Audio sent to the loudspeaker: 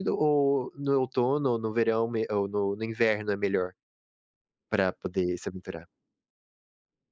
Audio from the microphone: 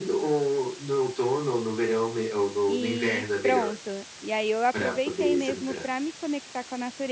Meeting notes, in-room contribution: present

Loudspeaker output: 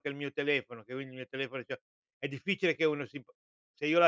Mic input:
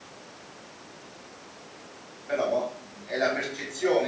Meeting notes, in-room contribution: present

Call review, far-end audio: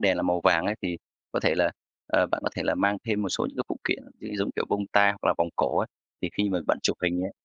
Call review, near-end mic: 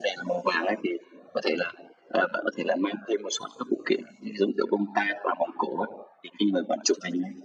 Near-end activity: none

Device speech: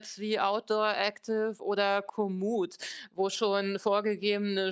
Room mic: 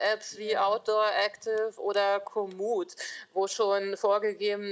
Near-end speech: present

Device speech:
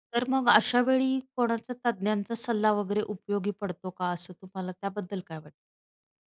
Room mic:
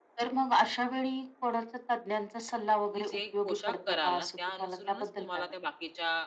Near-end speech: present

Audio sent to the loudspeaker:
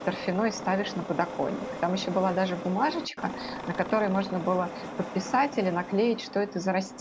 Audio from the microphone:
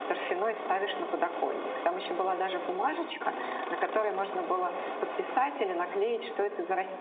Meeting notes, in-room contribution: none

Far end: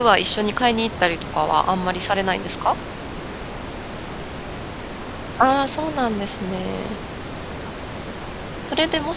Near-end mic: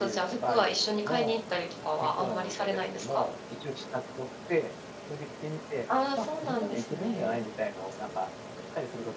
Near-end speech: present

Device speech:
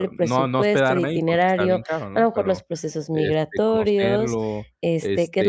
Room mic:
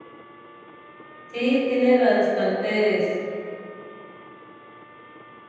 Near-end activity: present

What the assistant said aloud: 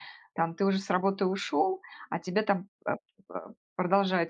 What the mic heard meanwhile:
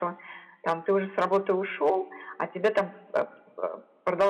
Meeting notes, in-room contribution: none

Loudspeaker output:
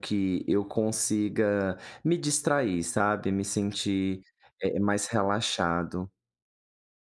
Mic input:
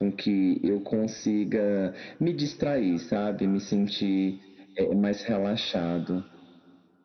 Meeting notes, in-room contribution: none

